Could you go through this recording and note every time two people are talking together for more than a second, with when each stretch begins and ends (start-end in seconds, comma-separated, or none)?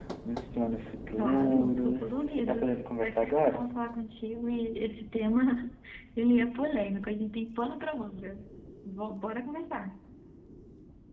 1.2-3.6